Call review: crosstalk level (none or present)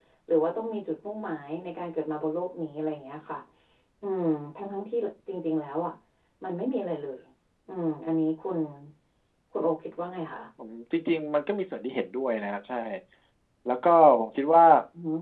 none